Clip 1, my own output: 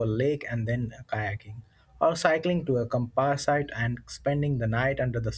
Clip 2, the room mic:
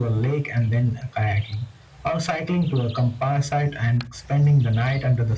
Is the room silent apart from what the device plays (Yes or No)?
Yes